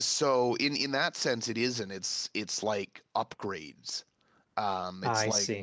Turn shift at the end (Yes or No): No